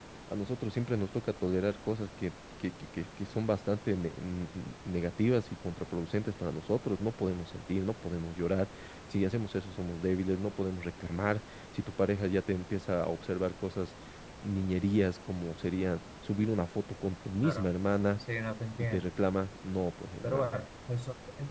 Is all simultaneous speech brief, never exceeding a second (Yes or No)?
Yes